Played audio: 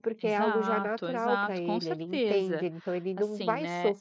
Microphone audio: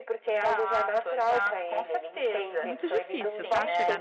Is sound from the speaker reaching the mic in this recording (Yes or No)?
Yes